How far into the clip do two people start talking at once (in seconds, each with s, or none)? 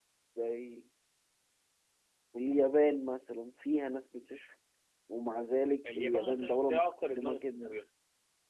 6.0 s